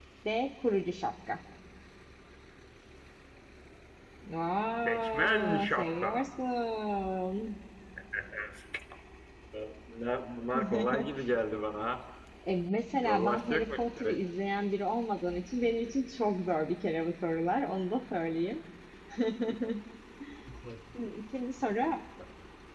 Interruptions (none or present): present